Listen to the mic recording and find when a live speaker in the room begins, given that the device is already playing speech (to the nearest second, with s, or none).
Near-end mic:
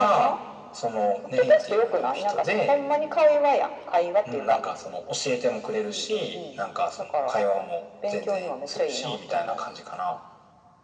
none